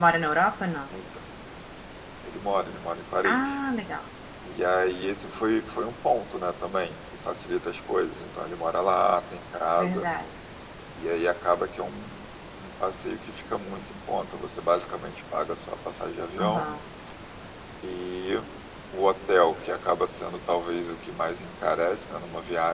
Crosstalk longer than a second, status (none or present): none